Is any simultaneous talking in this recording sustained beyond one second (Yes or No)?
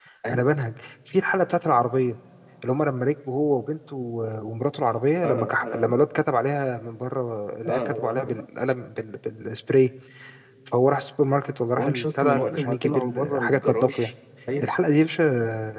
Yes